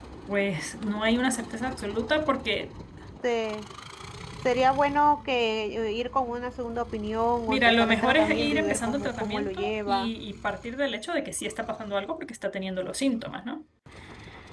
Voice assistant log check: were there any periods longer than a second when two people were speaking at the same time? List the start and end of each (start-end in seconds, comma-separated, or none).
7.5-10.1